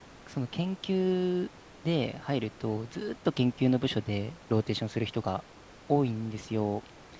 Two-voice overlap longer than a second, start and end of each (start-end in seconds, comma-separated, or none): none